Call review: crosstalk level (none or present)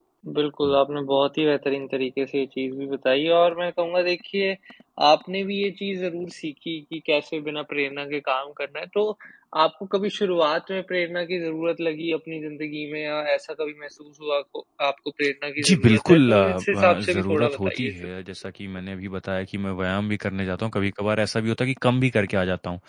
present